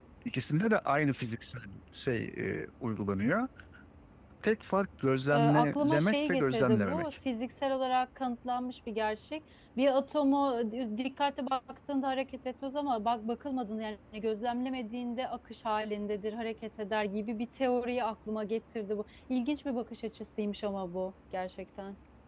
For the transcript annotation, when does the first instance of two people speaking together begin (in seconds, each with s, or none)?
5.3 s